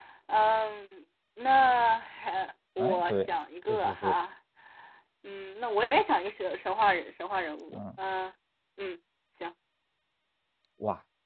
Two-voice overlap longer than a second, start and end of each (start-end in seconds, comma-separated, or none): none